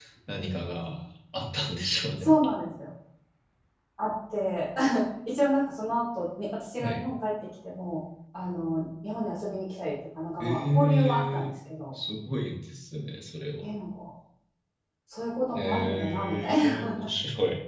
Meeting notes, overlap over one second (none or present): present